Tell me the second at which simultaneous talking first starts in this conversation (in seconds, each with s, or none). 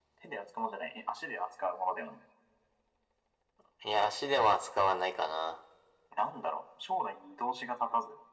none